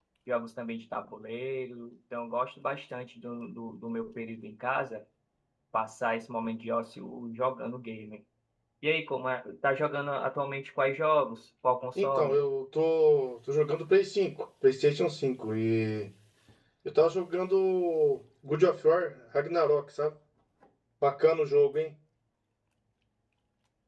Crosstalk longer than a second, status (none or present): none